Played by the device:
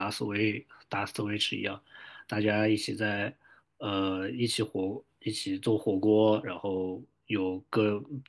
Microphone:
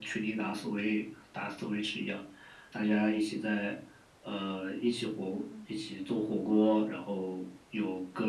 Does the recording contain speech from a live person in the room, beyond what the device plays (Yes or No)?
Yes